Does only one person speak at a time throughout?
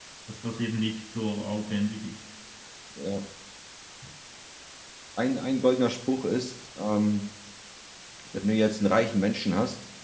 Yes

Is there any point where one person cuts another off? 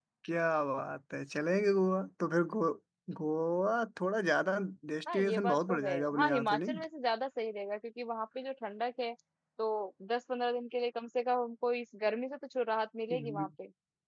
Yes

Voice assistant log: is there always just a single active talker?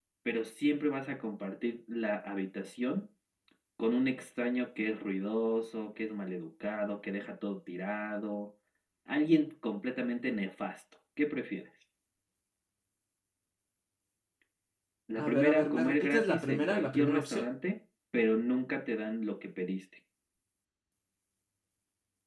No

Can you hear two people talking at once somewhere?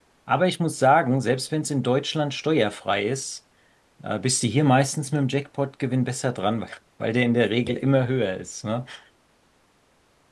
No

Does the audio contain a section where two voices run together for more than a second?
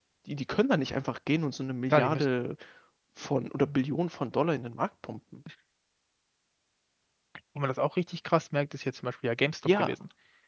No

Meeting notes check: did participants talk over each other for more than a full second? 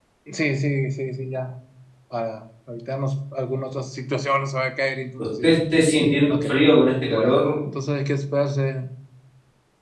No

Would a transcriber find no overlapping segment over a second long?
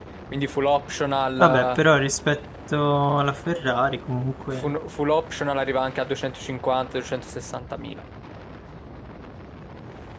Yes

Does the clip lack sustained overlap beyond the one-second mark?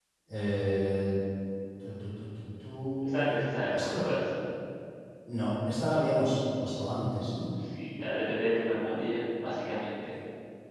Yes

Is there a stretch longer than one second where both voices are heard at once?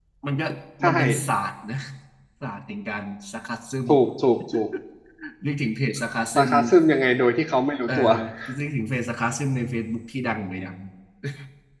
No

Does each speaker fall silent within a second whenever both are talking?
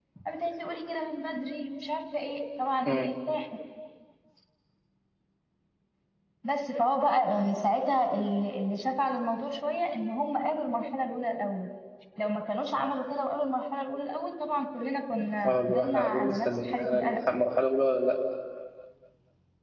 No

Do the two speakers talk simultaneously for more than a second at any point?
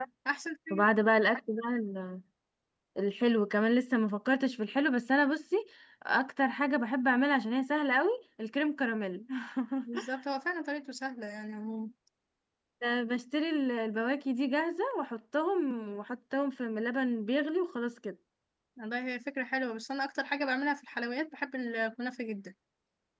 No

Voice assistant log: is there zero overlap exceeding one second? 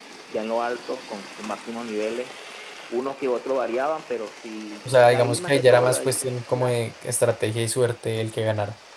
No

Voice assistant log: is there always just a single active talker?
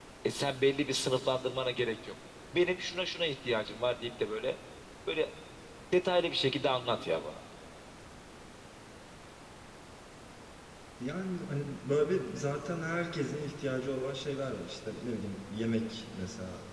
Yes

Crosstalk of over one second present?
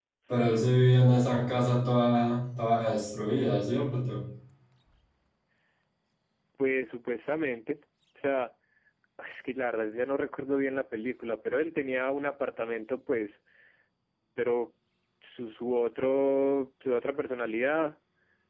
No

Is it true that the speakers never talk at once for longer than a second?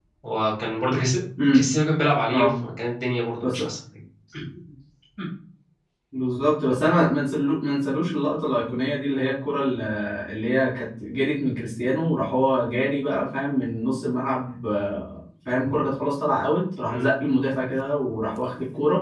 Yes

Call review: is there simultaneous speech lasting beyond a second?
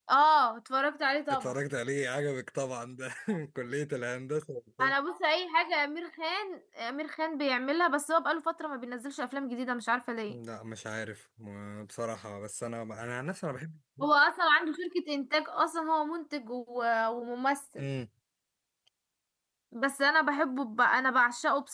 No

